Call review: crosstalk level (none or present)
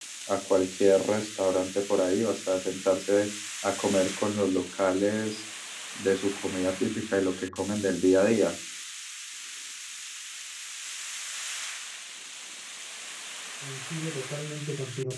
none